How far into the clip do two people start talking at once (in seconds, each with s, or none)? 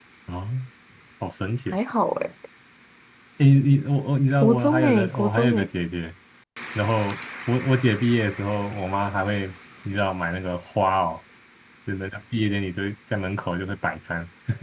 4.4 s